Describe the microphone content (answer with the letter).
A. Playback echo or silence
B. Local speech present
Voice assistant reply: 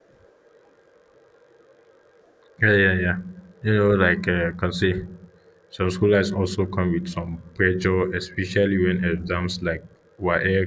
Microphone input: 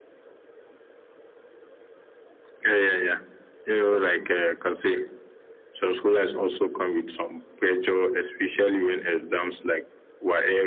A